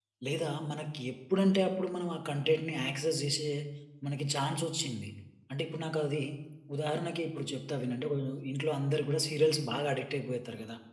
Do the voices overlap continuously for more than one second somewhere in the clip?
No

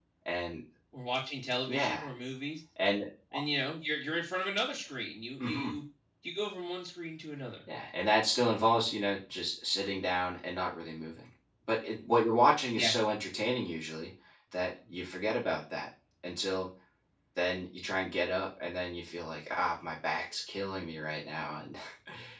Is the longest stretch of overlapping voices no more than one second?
Yes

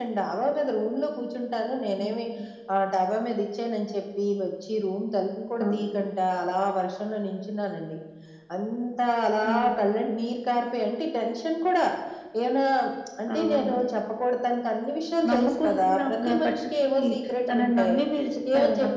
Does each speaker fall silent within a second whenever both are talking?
No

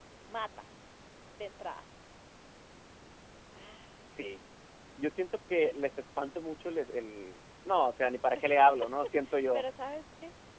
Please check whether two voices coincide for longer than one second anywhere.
No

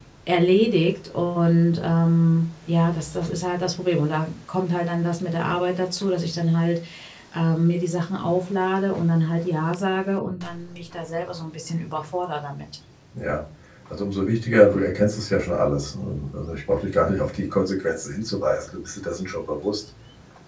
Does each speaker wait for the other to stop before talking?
Yes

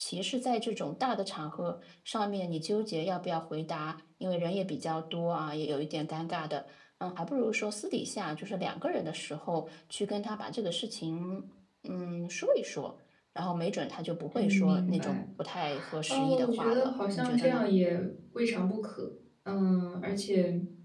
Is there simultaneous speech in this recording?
Yes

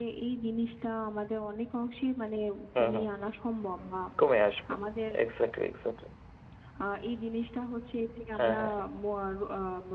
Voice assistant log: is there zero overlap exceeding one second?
Yes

